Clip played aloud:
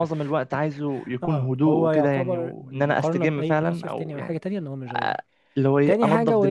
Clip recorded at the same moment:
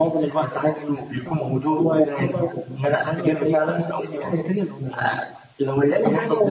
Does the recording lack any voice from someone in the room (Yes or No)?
Yes